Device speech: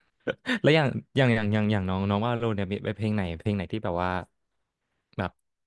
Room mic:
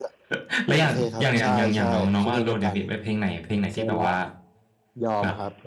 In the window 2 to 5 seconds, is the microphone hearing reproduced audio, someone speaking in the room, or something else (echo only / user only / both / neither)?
both